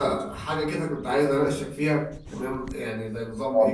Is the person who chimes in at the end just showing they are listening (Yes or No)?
Yes